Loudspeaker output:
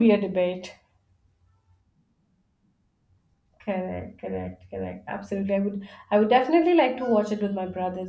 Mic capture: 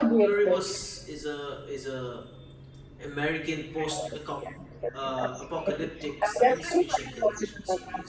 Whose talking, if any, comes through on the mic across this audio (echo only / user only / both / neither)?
both